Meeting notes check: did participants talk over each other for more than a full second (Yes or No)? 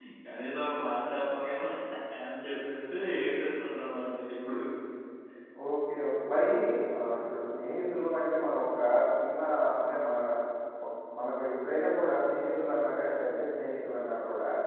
No